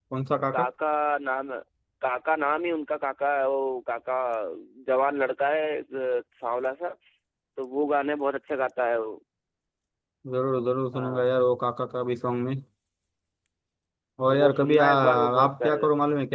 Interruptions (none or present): present